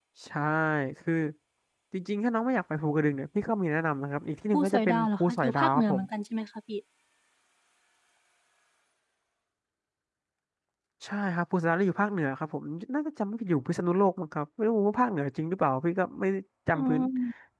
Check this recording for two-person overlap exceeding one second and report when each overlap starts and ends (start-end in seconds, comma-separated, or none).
4.5-6.0